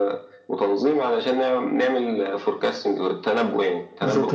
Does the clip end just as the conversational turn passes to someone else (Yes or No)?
Yes